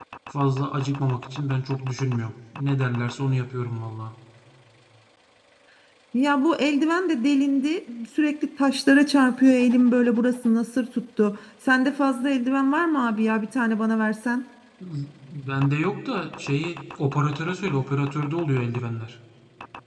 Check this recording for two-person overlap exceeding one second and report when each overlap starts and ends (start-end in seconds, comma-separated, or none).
none